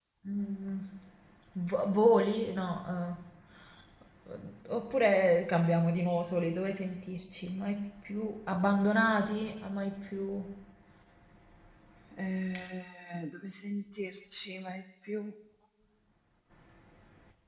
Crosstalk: none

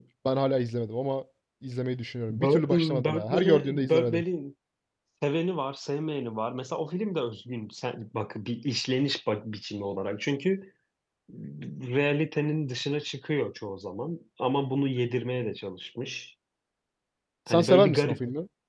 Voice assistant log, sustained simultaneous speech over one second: present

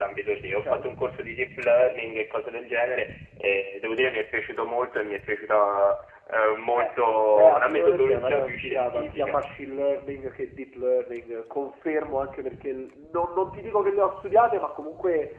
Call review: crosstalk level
present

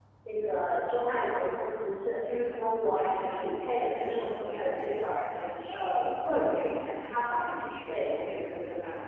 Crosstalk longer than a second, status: present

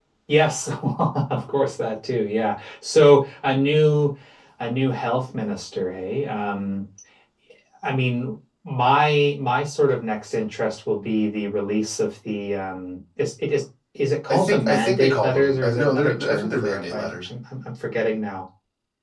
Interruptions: present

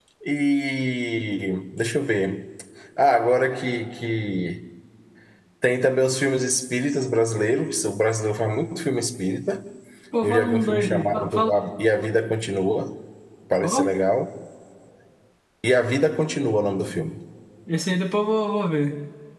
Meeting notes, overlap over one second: present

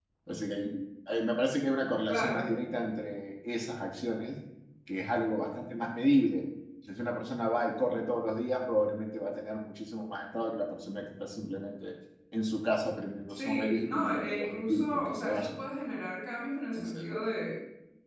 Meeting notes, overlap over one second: present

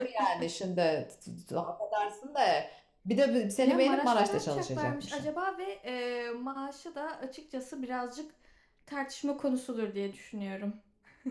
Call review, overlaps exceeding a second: present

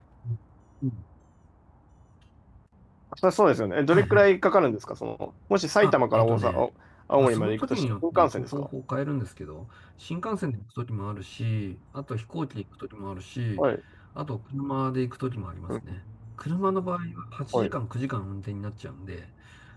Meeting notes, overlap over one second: present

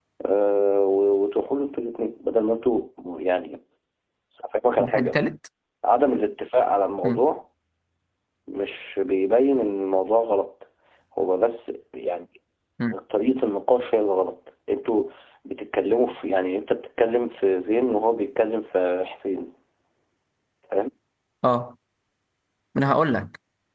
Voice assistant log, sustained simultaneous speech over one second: none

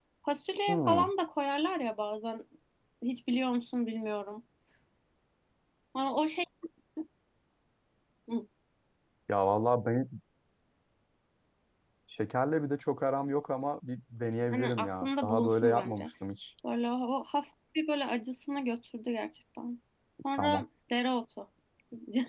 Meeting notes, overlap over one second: present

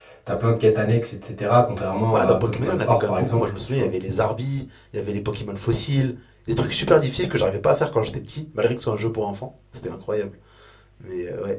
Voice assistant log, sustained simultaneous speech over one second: present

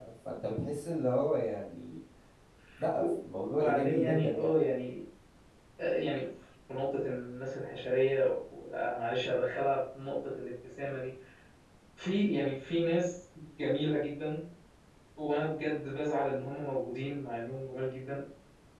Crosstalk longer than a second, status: present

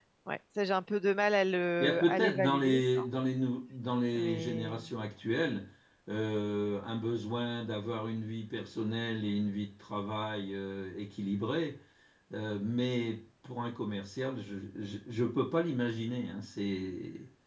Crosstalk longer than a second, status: present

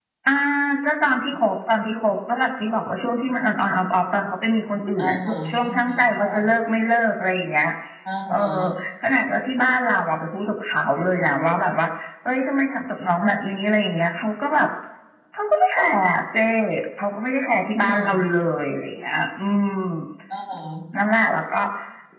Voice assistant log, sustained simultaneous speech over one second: present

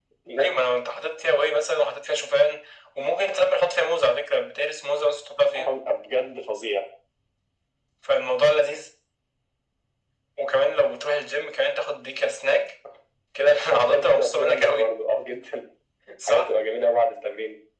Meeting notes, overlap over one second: present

